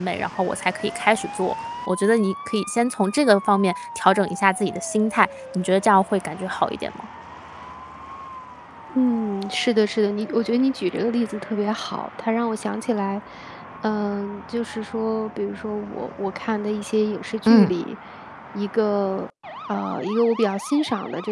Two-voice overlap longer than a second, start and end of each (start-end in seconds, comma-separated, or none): none